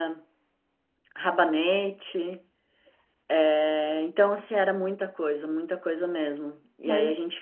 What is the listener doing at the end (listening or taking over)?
listening